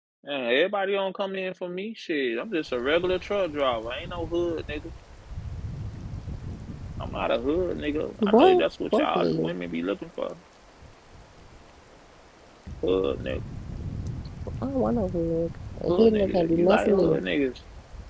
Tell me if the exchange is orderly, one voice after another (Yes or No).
No